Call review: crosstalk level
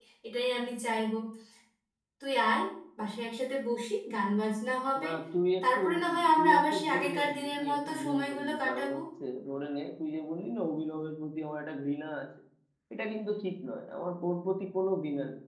present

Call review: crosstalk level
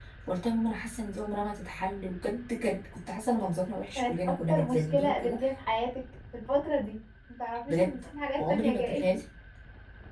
present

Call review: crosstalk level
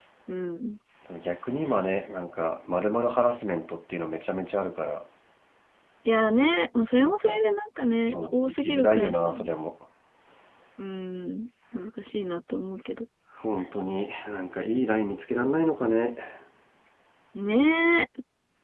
present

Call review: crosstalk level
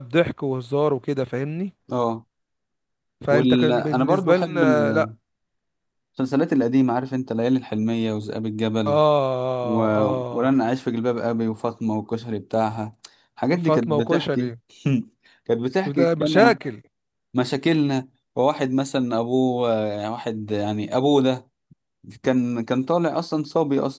present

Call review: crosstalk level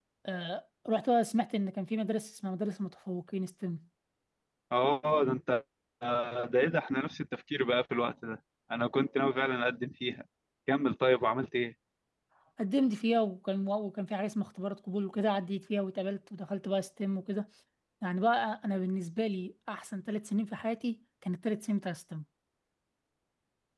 none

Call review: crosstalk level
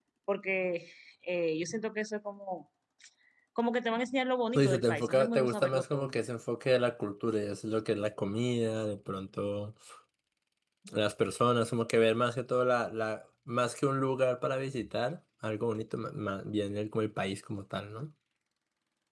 present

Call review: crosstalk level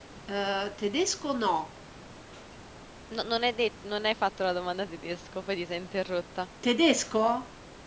none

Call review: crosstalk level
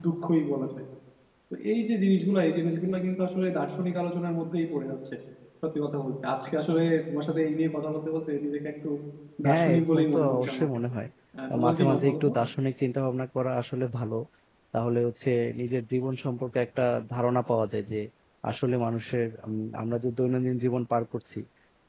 present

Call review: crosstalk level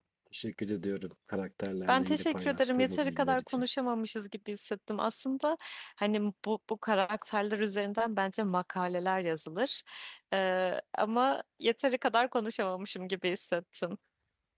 present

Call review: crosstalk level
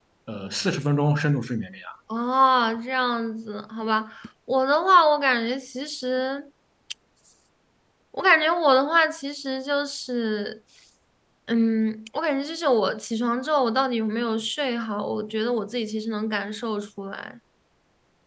none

